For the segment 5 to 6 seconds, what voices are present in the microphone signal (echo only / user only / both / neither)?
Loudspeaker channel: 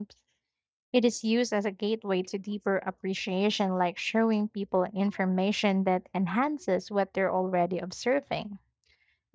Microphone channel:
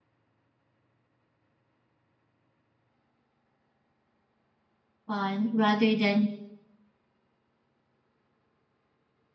user only